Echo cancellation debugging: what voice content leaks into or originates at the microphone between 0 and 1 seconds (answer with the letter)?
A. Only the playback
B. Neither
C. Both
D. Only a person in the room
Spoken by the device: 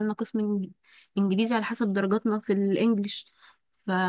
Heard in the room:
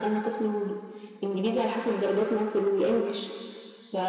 A